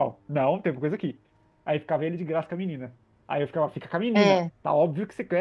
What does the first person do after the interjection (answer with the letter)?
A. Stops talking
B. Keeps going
B